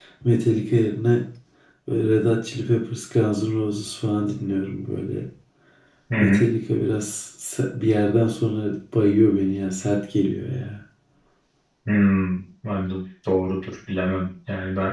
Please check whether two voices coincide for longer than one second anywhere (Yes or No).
No